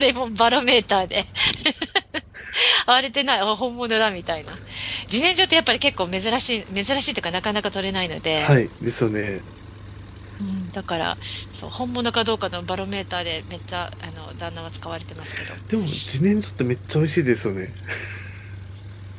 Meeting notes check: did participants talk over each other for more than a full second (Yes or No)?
No